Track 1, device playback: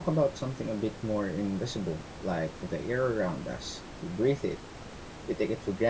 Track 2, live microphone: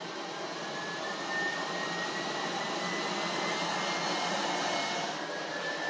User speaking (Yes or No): No